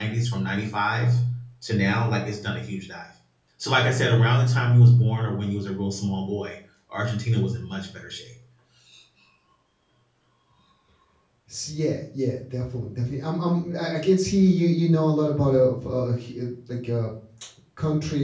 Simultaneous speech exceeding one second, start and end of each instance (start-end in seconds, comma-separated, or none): none